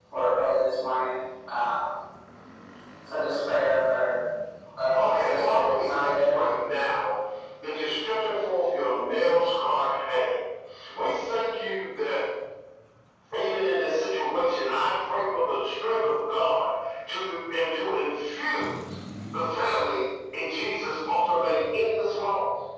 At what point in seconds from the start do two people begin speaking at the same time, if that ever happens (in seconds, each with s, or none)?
4.9 s